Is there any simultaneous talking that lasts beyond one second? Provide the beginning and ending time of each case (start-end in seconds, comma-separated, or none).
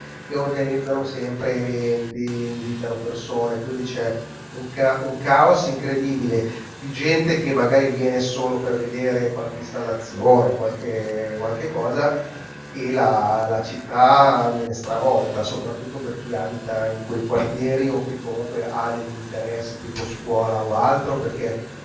none